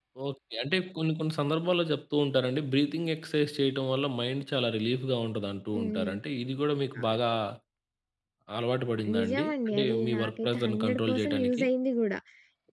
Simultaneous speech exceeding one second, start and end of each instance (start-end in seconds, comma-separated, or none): 9.1-11.6